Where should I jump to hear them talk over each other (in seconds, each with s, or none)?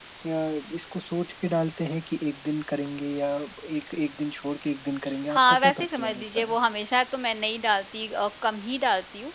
5.3 s